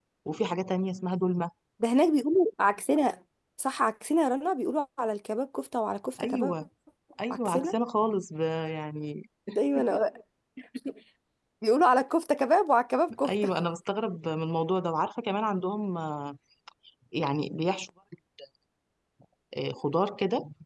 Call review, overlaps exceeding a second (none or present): none